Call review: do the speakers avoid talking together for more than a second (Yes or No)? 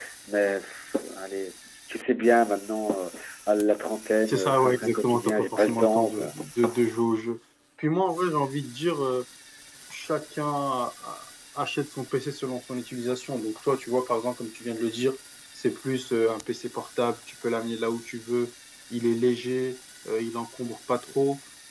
No